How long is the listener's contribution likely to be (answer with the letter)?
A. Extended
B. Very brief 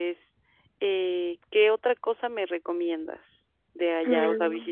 B